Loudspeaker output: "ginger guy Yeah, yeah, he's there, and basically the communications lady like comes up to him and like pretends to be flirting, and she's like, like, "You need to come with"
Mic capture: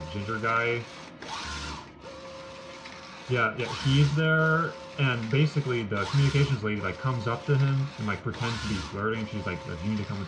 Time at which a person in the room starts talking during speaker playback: none

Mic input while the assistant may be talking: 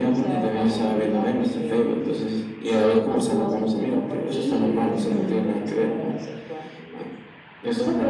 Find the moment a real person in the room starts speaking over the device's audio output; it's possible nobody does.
5 s

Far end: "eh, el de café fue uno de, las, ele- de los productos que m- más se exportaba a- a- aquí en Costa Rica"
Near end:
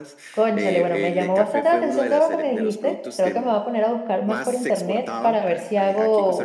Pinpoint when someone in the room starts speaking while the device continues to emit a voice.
0 s

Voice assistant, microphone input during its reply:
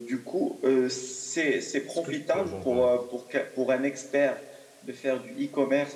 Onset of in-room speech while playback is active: 2 s

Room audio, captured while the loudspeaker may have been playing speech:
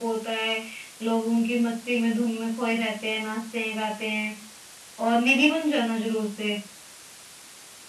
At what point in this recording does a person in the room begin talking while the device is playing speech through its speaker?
none

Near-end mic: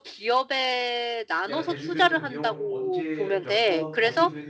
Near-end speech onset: 1 s

